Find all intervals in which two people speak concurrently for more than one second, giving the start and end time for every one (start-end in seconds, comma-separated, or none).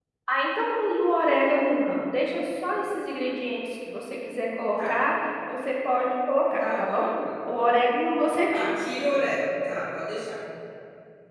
none